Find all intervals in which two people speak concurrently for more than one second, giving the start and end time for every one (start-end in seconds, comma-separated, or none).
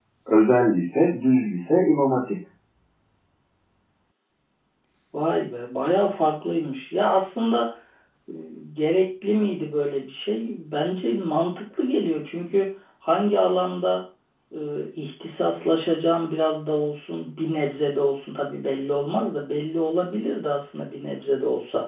none